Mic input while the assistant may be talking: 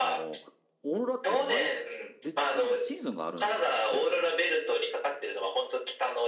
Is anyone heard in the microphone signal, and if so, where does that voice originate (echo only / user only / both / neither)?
both